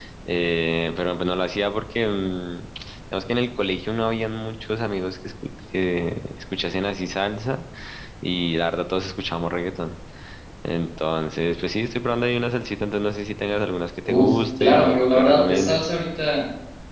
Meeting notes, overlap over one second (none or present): present